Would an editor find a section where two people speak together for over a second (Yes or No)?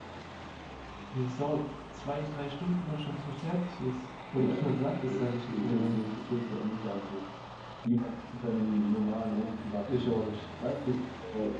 Yes